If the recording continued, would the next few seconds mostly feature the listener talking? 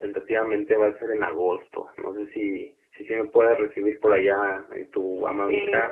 Yes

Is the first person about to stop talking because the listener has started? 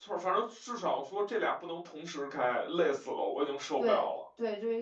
Yes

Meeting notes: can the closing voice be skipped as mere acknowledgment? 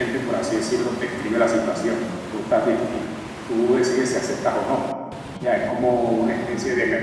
Yes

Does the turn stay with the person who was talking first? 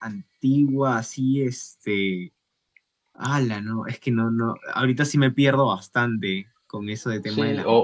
No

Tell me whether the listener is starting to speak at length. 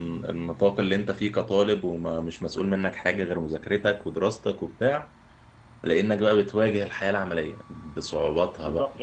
Yes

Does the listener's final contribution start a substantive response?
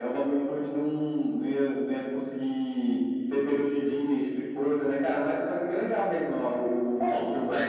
Yes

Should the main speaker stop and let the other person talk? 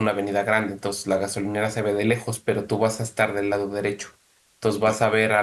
No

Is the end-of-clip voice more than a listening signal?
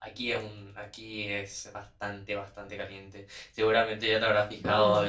No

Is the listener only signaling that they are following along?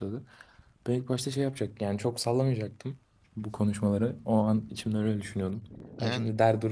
Yes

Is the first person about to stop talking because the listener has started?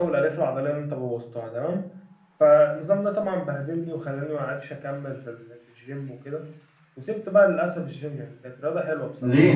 Yes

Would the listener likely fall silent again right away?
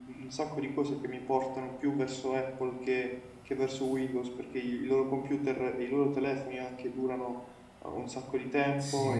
Yes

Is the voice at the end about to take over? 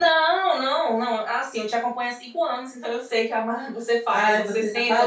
Yes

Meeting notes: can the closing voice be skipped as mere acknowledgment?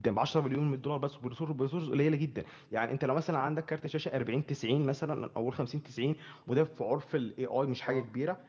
Yes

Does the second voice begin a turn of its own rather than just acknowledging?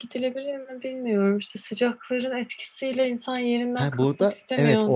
Yes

